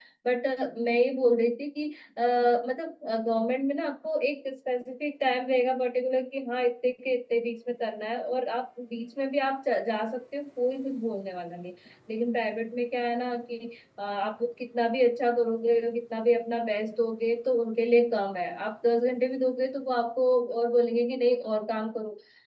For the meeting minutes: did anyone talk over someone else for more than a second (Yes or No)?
No